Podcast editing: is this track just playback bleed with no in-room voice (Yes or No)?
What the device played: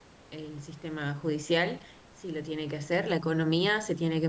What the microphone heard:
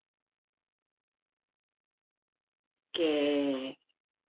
No